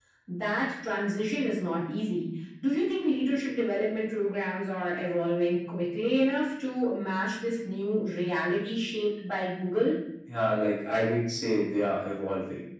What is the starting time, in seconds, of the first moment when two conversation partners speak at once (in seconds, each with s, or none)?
none